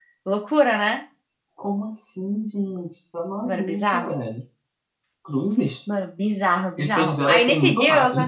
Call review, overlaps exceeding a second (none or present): present